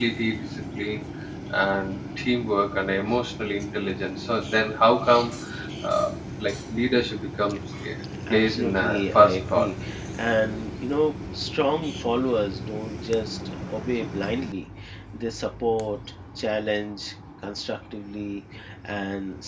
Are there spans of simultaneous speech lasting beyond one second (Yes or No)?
Yes